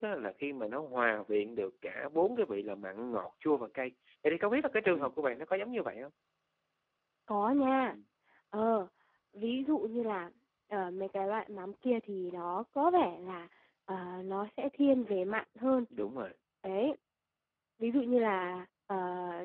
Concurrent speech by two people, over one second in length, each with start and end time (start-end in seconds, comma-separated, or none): none